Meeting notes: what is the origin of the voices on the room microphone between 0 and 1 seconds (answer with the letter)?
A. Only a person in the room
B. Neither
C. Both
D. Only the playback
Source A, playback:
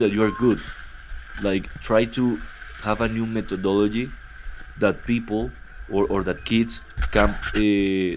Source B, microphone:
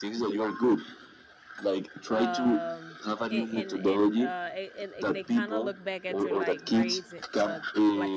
D